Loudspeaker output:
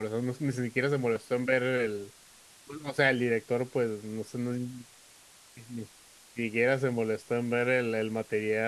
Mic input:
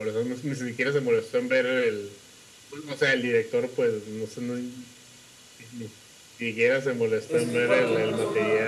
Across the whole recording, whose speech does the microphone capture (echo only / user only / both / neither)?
both